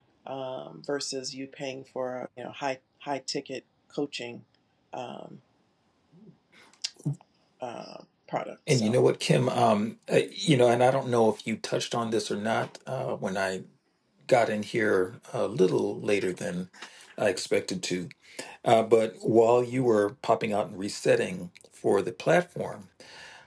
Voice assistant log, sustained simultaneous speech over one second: none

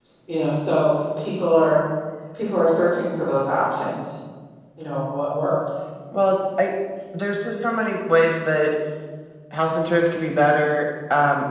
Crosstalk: none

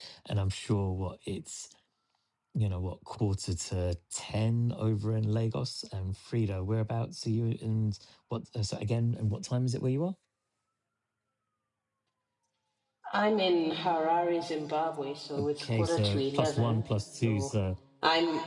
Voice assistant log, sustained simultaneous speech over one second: present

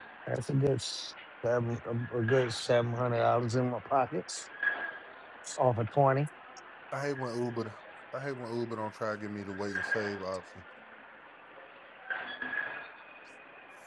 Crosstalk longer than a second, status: none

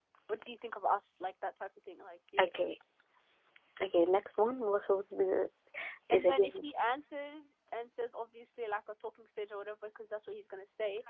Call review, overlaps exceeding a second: none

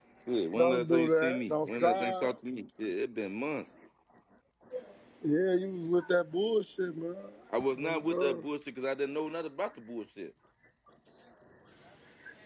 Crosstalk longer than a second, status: present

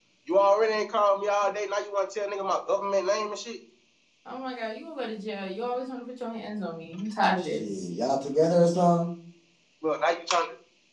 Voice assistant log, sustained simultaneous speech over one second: none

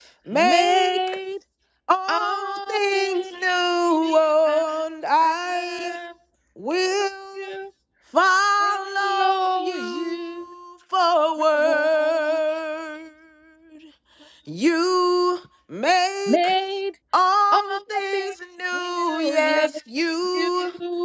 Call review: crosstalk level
present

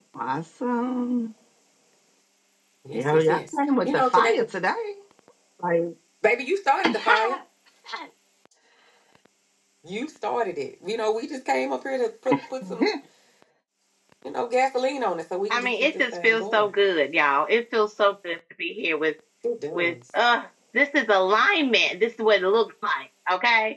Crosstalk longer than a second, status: present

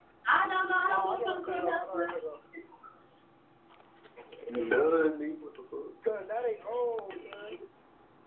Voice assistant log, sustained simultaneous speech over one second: present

